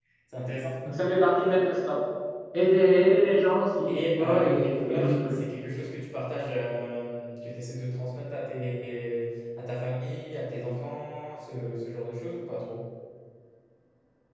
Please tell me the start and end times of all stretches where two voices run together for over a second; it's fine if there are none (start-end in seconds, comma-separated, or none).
3.9-5.4